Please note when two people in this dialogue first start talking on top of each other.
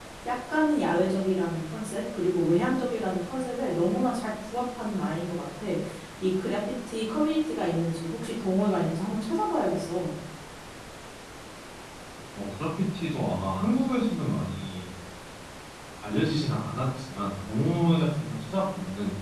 none

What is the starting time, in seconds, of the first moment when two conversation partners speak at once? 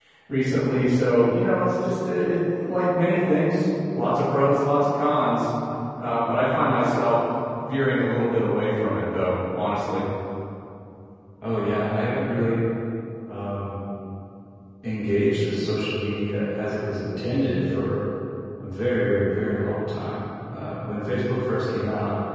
none

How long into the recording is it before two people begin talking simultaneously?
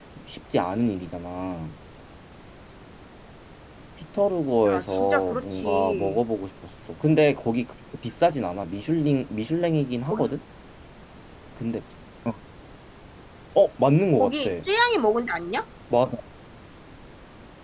4.7 s

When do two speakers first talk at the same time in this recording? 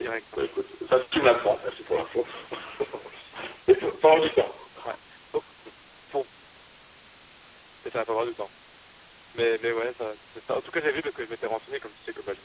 none

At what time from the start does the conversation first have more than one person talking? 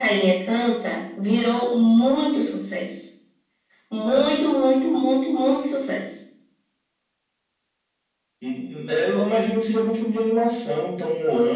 none

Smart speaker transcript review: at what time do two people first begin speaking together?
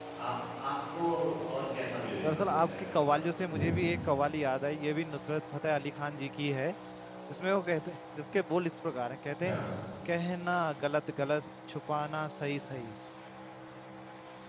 2.3 s

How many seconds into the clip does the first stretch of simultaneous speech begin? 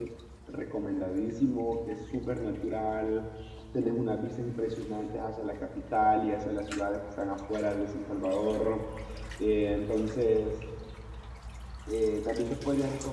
none

